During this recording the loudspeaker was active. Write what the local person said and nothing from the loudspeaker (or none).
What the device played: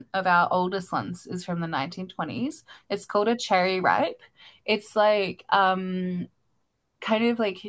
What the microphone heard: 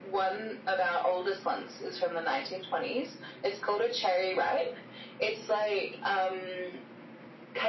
none